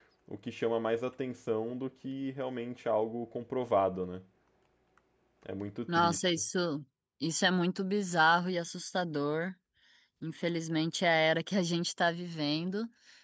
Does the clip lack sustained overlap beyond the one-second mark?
Yes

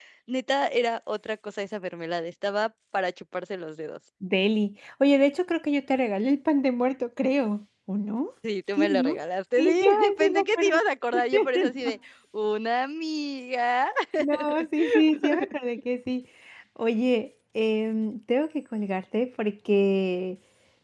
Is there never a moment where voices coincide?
No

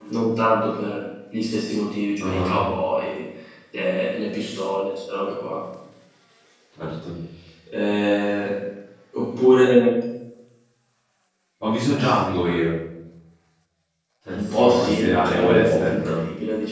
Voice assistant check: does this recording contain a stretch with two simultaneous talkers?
Yes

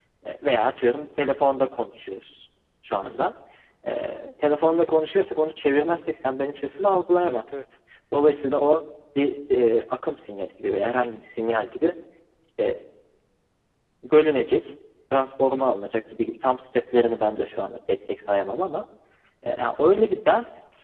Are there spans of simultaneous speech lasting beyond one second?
No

